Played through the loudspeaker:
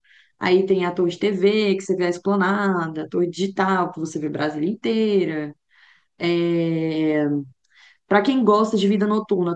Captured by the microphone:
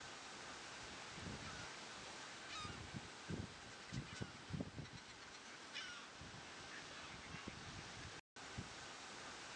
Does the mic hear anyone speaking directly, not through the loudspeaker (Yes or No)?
No